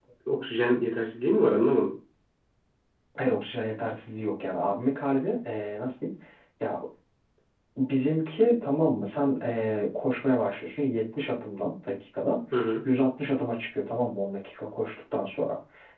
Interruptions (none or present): none